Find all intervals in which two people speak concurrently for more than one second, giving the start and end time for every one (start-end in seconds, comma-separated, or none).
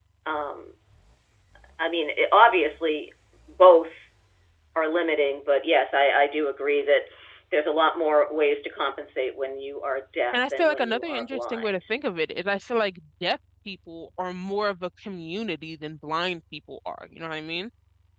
10.3-11.9